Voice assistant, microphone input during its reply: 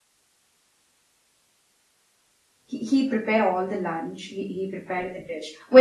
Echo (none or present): none